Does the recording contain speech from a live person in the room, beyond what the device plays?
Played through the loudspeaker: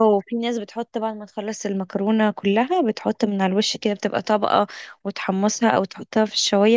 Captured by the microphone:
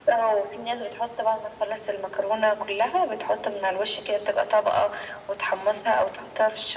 No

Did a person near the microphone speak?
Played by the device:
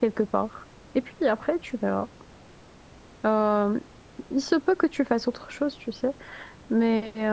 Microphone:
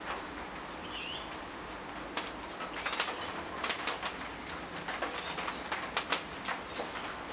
No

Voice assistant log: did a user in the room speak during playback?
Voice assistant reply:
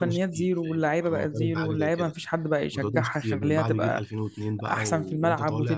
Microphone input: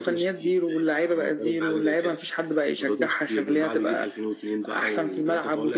No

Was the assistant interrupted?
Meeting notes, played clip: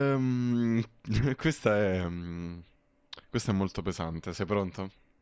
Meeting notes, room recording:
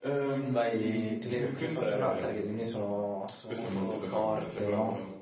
Yes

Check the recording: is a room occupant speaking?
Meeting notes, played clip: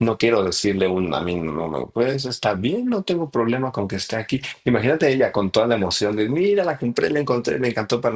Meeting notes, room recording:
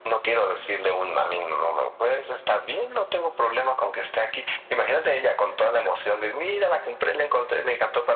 No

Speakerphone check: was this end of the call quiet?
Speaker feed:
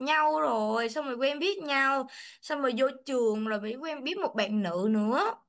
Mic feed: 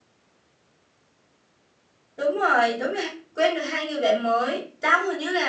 No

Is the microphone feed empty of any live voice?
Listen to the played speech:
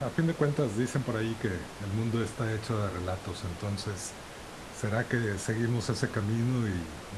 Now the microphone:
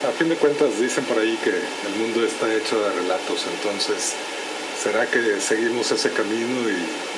Yes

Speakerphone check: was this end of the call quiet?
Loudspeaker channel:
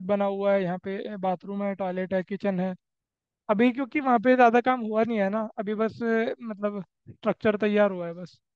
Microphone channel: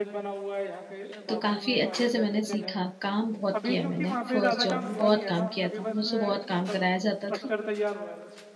No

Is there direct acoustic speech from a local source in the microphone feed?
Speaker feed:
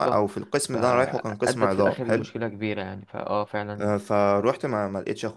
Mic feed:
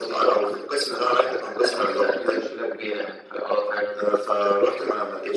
No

